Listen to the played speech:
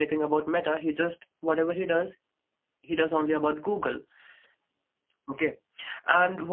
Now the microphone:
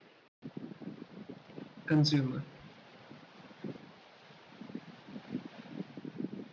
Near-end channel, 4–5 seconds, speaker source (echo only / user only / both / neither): neither